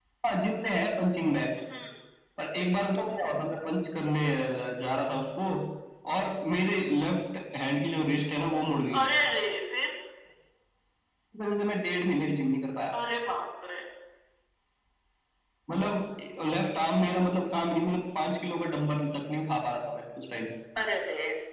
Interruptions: none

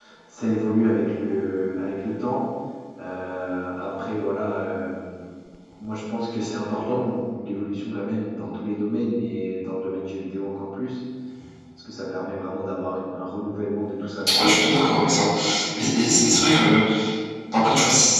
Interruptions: none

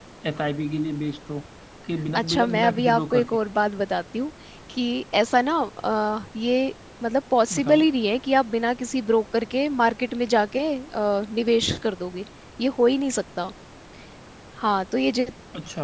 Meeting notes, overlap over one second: present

